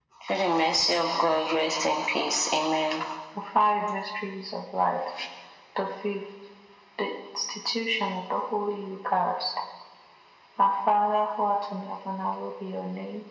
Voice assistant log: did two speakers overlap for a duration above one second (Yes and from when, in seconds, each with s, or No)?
No